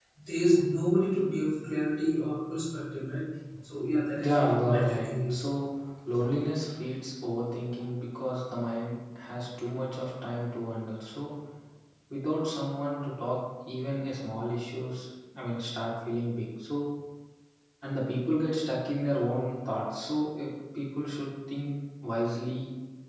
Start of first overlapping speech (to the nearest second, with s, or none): 4 s